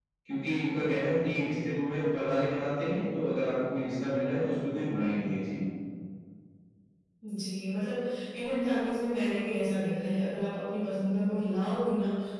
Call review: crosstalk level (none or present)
none